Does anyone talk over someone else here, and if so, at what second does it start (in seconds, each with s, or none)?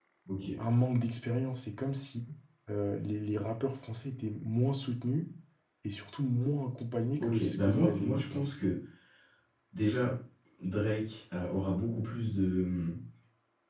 7.2 s